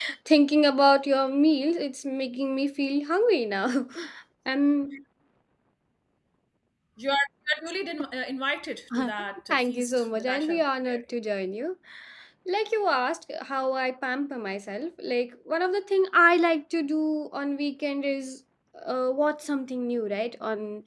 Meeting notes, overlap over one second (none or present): present